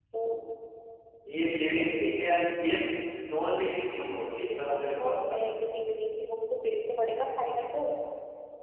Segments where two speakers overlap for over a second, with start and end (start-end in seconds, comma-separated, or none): 4.0-5.5